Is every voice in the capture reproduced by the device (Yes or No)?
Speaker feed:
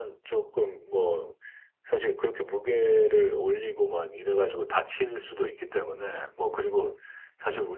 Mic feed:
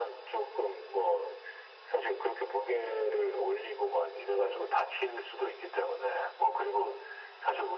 Yes